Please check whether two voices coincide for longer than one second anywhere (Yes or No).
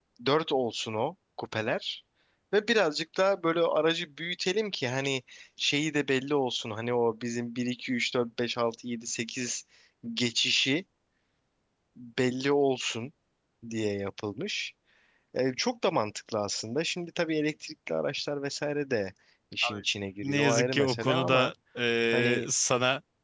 Yes